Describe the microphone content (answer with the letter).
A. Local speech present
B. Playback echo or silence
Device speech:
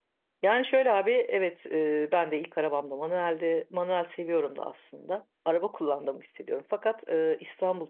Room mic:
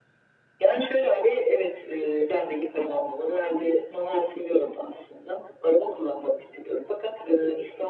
B